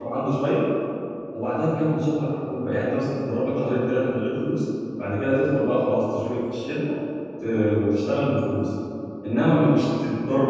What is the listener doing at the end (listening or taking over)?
listening